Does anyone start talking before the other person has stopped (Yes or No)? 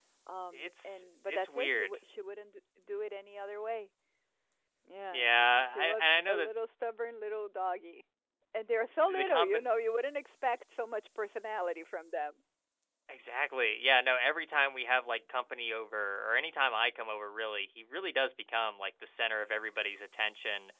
Yes